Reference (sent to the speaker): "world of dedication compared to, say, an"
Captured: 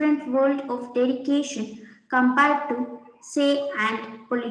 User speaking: No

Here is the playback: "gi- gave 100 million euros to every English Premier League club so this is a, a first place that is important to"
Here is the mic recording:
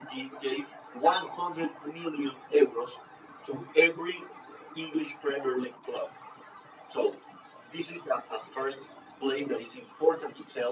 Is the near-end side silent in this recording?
Yes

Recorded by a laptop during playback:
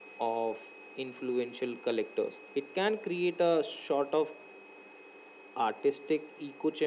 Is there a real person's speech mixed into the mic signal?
No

